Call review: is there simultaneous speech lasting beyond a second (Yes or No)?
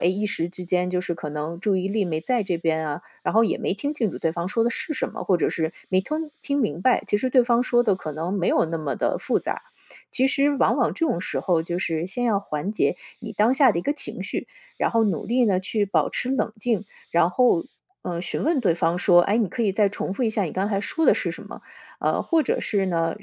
No